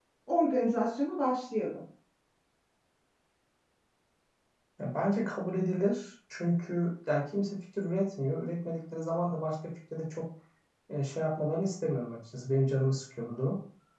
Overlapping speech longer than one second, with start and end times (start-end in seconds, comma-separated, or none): none